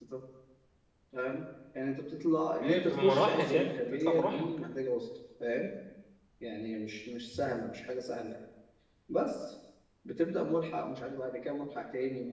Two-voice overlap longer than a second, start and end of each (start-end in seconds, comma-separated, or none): 2.6-4.5